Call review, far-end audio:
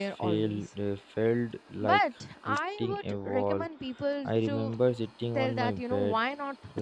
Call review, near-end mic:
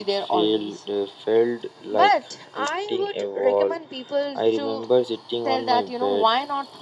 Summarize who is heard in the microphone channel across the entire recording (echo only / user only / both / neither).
echo only